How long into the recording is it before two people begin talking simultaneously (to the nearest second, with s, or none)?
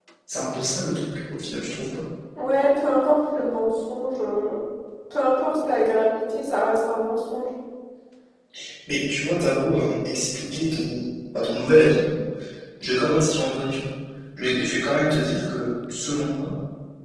none